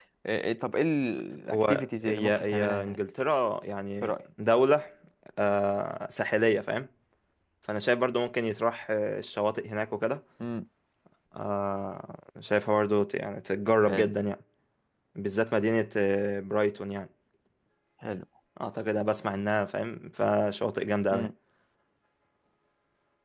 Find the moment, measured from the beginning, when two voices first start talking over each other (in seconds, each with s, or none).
1.5 s